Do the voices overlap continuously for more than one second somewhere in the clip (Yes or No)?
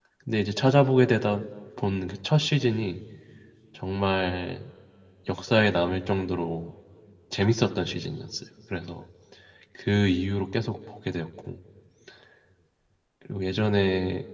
No